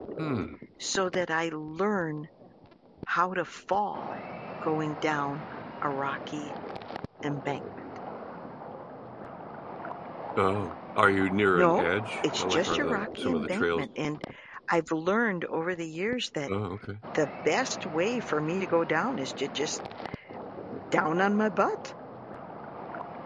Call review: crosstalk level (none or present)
present